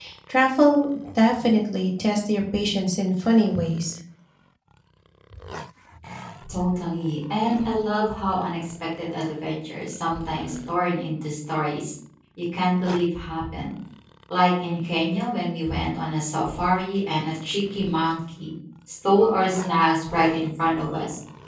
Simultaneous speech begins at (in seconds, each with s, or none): none